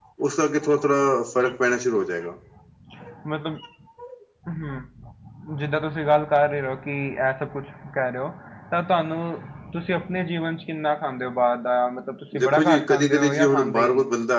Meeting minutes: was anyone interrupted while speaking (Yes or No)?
Yes